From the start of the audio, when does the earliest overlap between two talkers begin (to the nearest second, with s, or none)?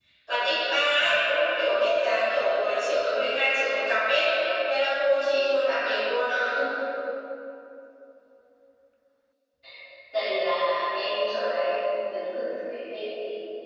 none